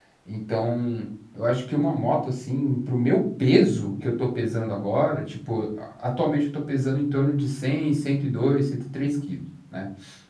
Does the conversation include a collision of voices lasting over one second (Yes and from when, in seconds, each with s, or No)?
No